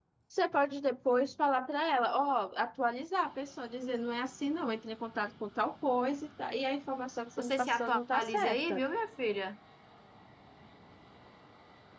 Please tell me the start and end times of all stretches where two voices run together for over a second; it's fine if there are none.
7.4-8.8

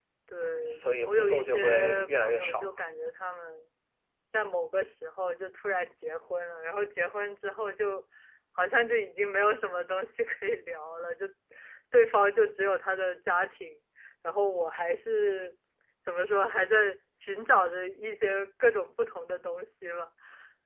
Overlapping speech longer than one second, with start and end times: 0.6-2.8

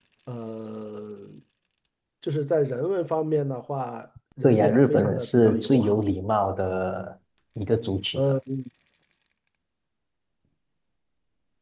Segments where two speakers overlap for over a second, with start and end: 4.4-6.0

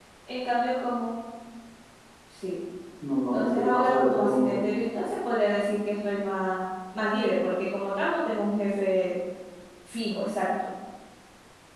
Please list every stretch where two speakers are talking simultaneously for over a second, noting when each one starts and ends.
3.3-4.6

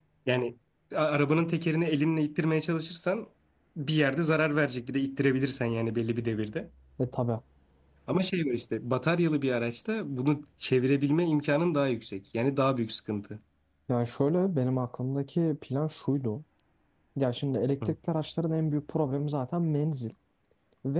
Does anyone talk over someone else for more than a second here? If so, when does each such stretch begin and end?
none

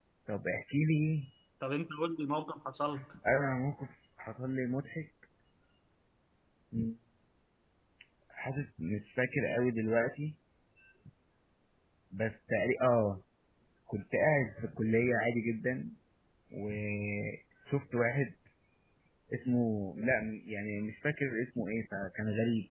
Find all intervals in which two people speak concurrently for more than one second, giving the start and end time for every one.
none

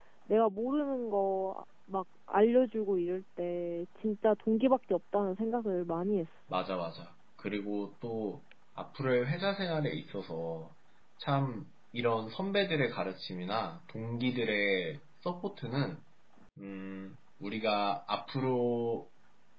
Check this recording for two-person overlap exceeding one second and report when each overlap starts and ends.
none

